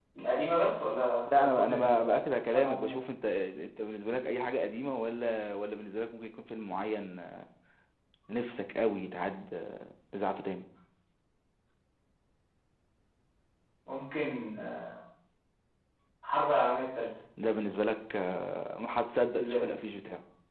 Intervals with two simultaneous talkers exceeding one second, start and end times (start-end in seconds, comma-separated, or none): 1.3-3.0